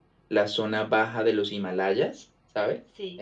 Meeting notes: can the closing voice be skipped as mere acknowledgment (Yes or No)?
Yes